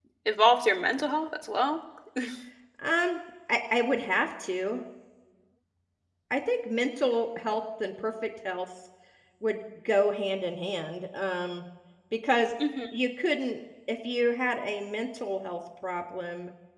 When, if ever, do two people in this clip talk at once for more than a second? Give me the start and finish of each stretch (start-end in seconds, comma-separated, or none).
none